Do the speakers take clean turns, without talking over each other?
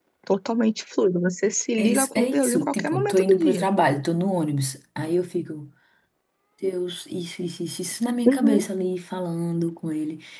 No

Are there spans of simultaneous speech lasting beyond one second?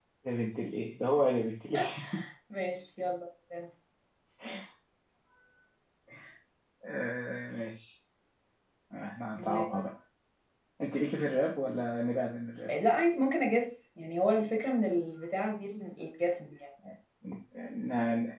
No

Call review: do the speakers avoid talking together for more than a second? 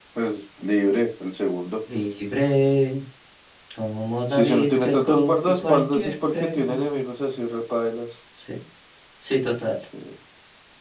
No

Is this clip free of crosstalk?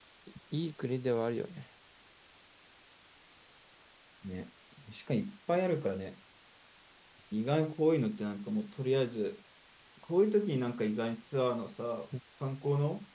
Yes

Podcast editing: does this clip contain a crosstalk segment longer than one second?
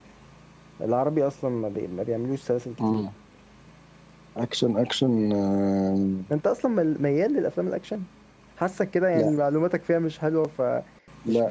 No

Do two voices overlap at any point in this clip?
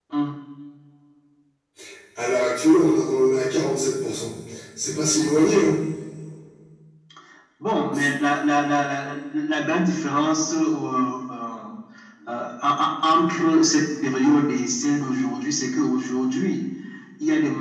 No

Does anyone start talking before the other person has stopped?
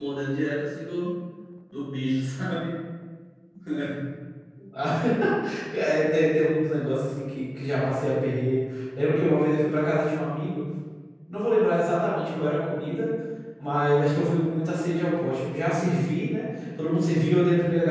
No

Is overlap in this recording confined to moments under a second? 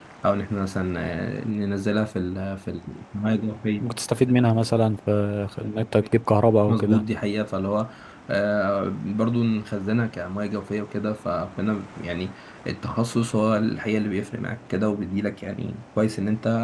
Yes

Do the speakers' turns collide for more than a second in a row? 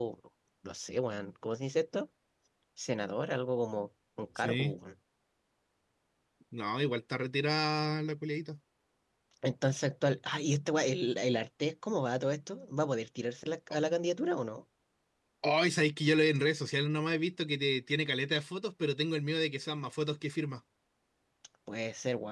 No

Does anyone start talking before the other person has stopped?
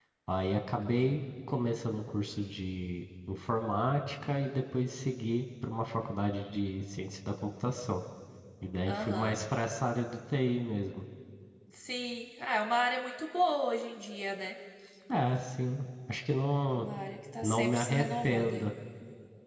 Yes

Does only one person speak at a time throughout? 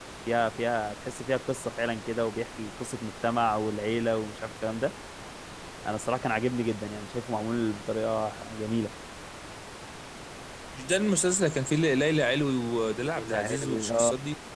No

